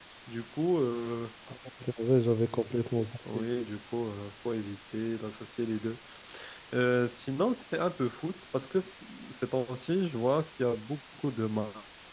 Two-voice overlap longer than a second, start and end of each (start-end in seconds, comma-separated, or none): none